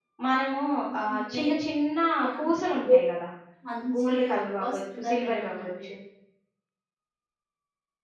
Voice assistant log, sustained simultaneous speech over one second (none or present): present